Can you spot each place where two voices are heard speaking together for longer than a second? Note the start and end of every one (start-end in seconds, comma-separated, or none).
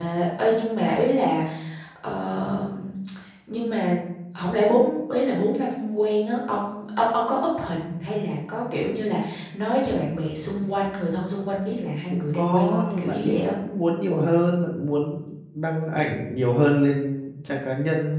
12.1-13.5